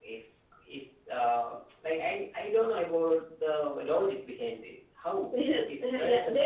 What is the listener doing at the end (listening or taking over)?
taking over